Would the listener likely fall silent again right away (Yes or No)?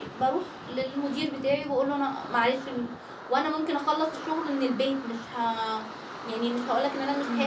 No